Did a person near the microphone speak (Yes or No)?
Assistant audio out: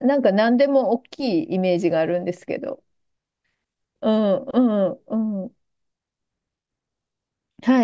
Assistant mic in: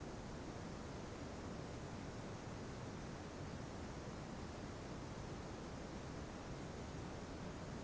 No